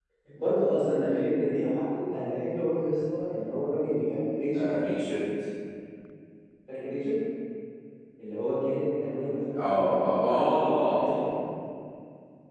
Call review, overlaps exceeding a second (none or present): present